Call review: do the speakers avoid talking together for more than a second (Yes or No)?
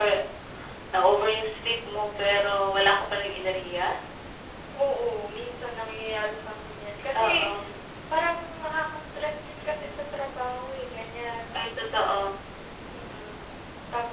Yes